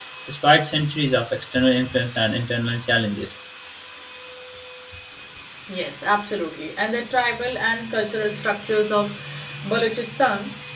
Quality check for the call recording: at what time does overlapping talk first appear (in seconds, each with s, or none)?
none